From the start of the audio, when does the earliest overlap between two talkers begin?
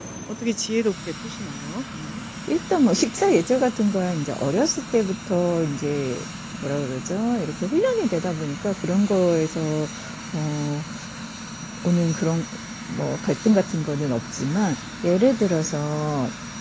none

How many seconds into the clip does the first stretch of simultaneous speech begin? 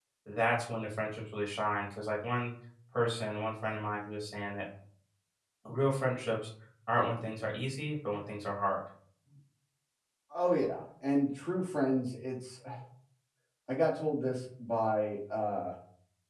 none

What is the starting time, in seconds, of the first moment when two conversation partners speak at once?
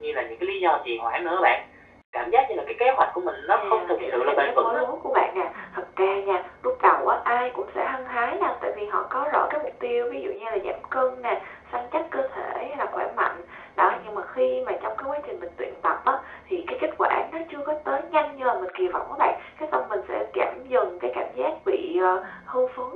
3.6 s

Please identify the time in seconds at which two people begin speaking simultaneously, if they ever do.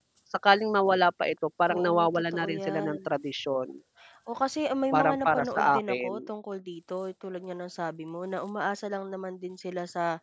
1.7 s

